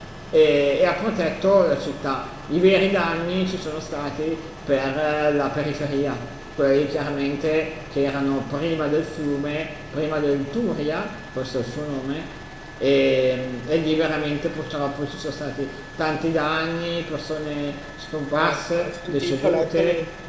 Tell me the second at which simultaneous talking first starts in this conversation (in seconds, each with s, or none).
18.4 s